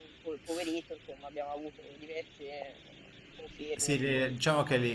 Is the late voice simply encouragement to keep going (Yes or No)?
No